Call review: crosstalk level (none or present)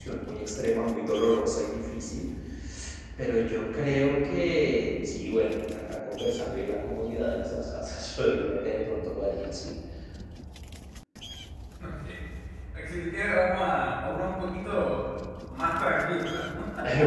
none